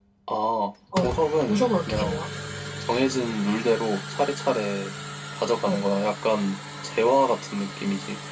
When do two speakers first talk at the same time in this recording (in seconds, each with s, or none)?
1.0 s